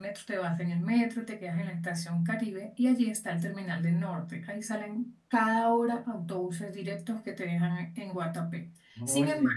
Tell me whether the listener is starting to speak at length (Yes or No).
No